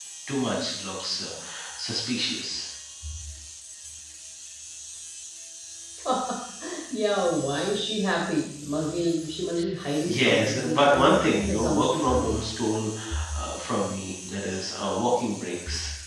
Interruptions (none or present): present